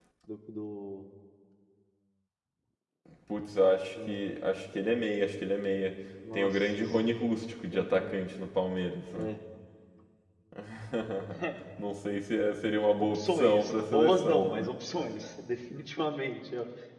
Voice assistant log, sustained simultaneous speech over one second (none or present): present